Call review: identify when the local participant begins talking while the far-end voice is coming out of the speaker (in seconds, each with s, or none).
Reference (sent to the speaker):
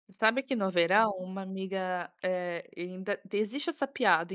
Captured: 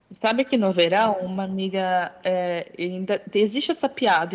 none